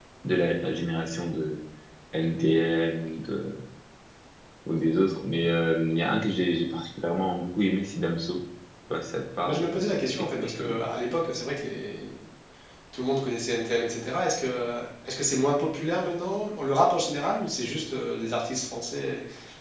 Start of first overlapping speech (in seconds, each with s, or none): 9.4 s